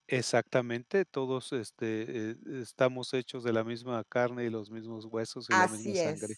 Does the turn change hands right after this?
Yes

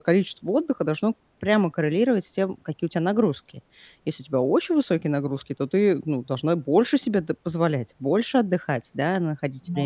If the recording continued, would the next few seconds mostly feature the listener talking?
No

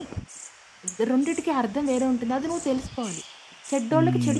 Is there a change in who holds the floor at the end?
Yes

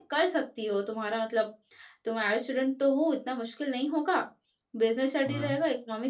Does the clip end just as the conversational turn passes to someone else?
No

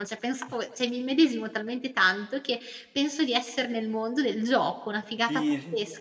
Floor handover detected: Yes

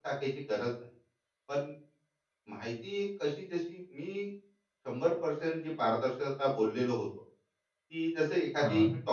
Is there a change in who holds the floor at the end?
No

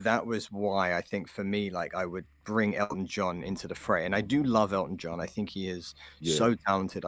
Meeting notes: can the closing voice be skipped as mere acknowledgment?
Yes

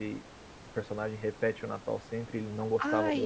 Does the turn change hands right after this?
Yes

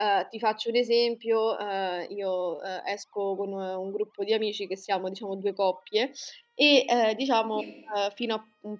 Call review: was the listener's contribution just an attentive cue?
Yes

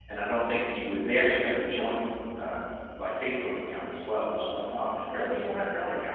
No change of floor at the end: Yes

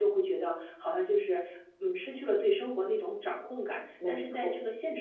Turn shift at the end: No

